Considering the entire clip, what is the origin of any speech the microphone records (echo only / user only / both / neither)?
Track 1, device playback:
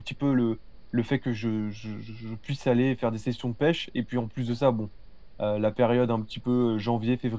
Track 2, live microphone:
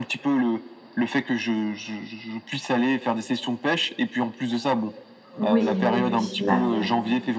both